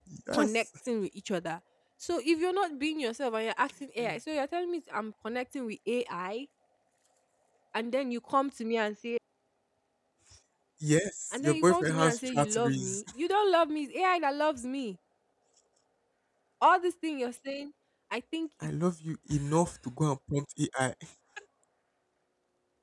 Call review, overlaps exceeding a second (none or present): present